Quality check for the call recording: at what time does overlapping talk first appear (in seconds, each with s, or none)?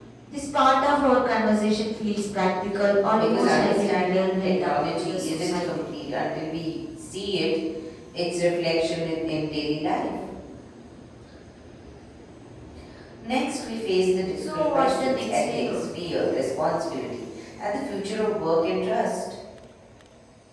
3.2 s